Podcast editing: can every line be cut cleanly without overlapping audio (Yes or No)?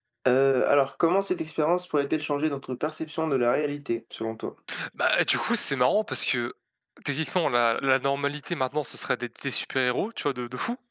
Yes